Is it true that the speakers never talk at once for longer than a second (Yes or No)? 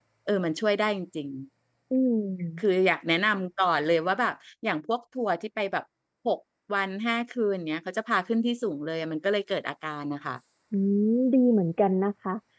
Yes